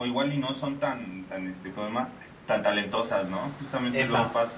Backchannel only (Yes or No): Yes